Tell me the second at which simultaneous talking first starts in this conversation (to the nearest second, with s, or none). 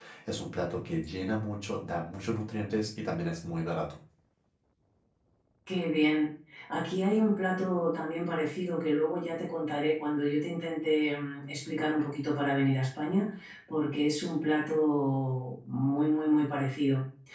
none